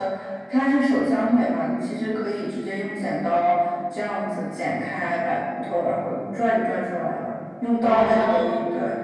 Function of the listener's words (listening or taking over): listening